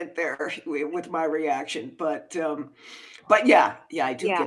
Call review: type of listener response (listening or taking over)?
taking over